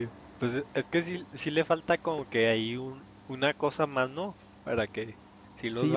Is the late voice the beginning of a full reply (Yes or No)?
Yes